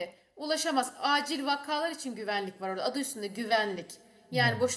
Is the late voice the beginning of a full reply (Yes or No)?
No